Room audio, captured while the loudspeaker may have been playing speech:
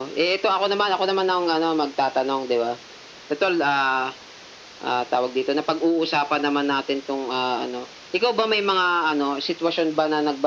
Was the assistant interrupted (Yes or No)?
No